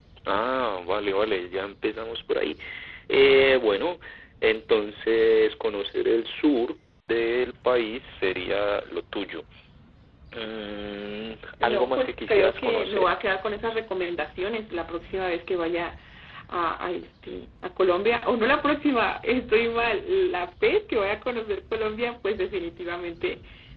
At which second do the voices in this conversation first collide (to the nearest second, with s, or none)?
12 s